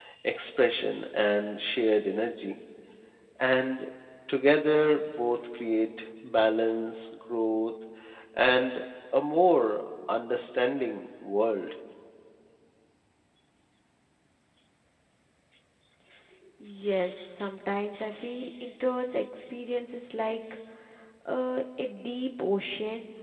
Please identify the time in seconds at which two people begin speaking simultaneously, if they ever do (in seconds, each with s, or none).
none